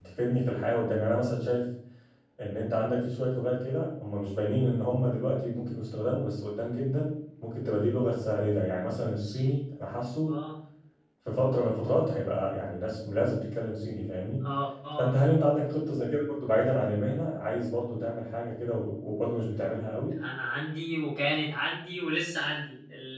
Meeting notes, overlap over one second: none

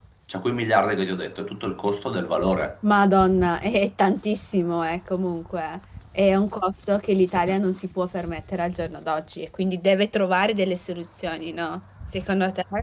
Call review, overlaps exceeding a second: none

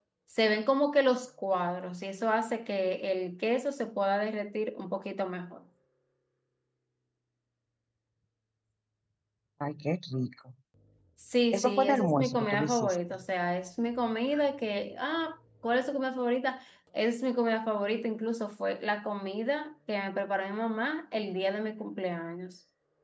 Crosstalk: present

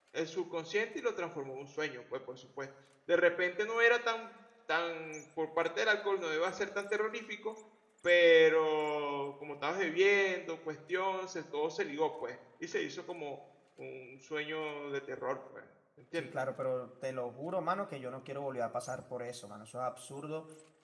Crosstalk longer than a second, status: none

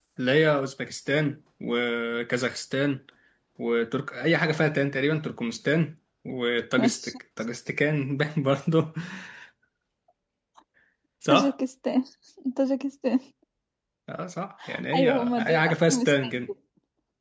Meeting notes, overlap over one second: present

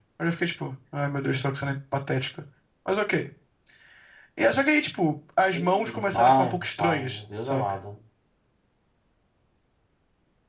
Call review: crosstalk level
present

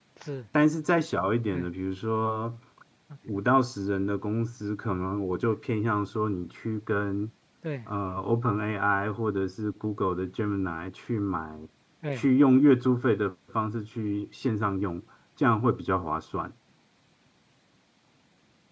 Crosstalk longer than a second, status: none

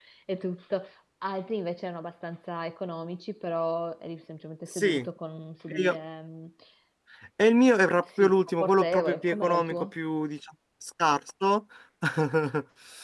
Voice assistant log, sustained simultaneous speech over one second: present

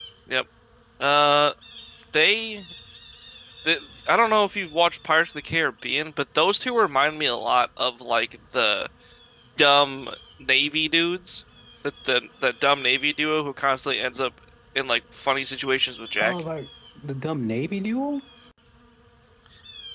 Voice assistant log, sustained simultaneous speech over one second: none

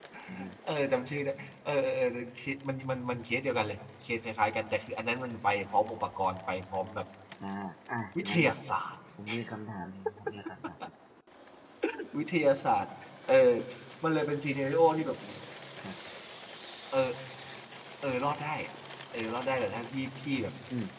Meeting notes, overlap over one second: none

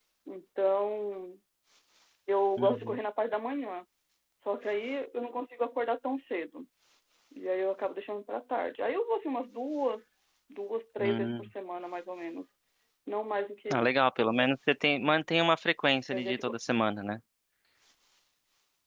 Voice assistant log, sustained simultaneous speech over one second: none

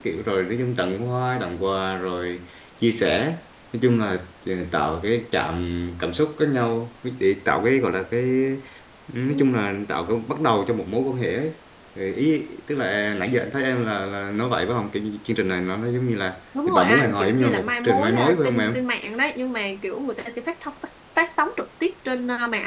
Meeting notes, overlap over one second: present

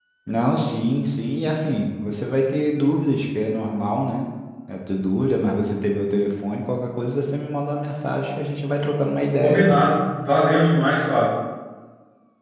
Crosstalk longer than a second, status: none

